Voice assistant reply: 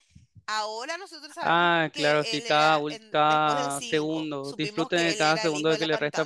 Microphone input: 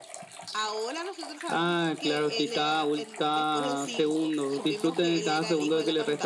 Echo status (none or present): present